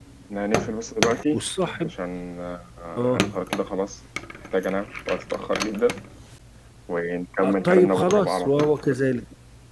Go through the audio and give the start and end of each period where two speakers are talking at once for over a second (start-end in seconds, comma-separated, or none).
7.4-8.7